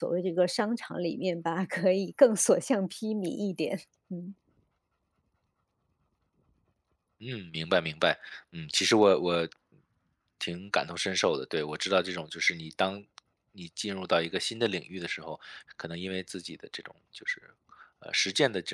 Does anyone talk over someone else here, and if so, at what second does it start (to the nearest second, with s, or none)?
none